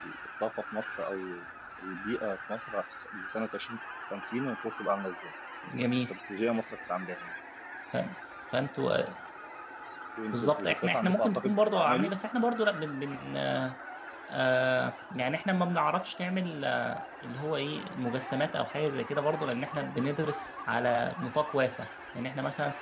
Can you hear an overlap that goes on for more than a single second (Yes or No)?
Yes